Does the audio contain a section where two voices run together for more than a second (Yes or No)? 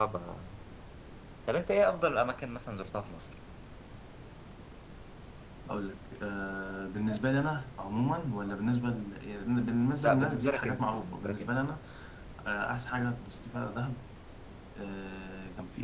Yes